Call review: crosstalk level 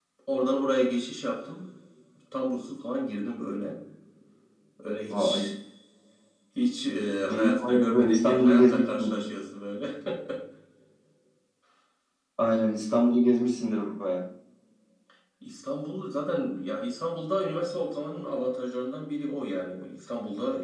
present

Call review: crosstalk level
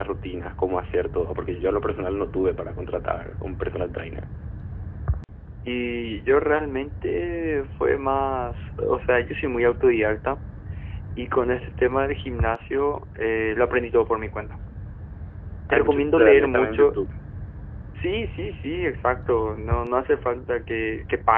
present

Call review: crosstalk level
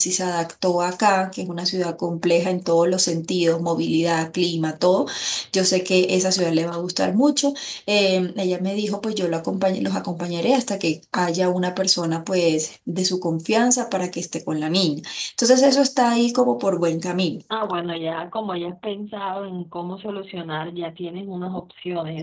none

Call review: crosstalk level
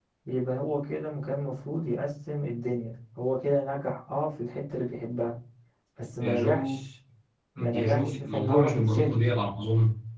present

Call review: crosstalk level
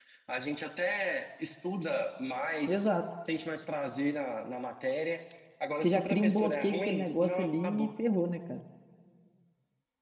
present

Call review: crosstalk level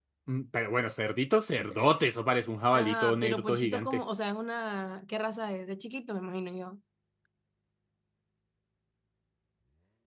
present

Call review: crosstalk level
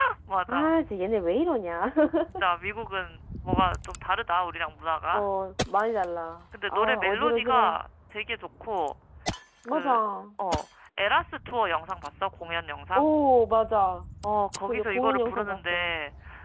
present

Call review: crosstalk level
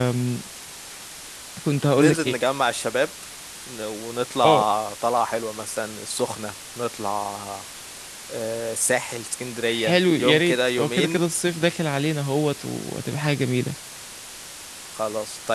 present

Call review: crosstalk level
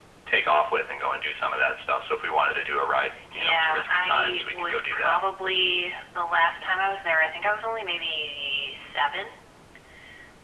present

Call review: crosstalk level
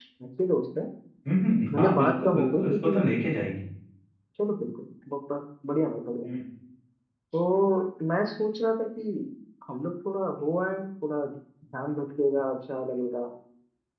present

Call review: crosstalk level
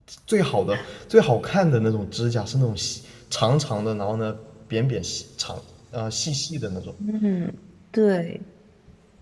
none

